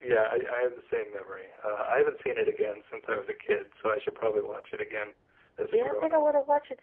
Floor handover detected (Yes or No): Yes